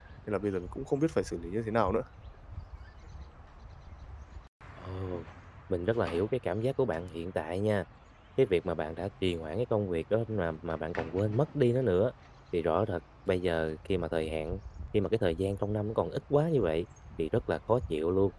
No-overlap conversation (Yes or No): Yes